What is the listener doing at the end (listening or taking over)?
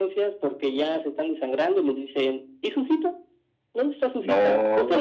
listening